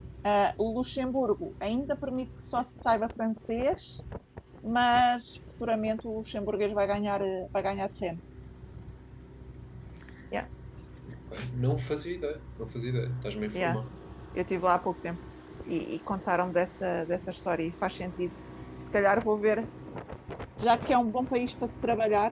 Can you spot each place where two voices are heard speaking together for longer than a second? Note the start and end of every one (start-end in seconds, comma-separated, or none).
none